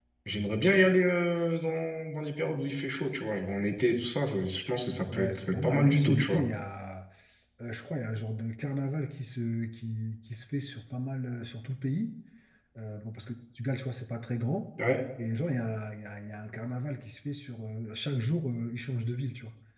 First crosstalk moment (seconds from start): 5.1 s

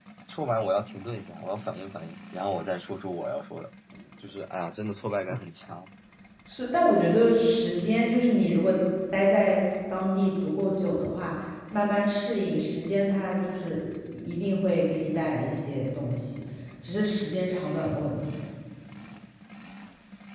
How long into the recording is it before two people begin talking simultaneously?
none

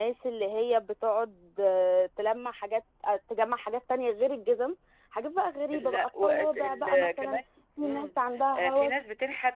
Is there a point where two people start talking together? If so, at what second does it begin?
5.7 s

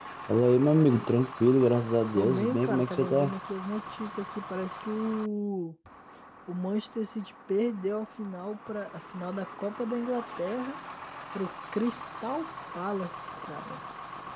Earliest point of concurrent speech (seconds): 2.1 s

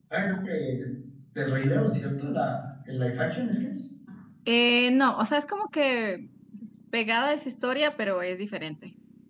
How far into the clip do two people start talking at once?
none

